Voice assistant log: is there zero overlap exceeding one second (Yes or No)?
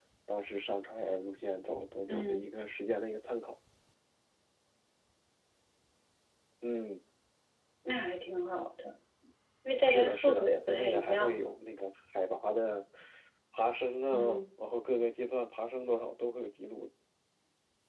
No